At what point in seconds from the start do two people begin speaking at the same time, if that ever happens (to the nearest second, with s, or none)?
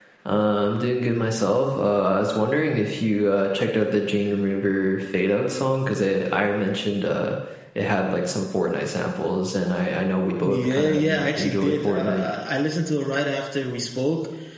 10 s